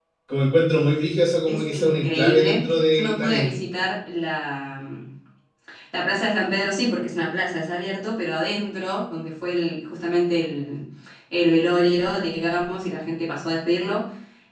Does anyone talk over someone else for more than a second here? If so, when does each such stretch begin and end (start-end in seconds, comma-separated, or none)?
1.5-3.5